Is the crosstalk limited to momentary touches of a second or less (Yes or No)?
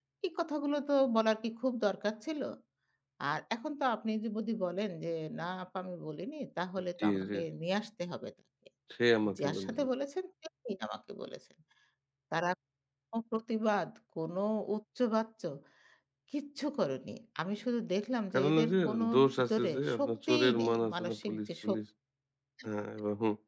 No